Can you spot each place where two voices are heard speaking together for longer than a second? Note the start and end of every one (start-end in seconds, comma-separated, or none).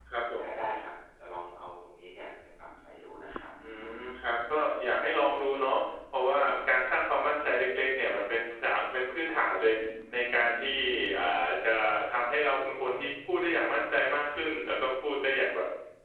none